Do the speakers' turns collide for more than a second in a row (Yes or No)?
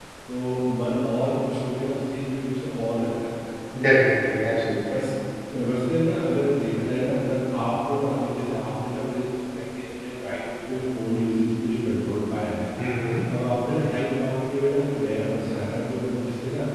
No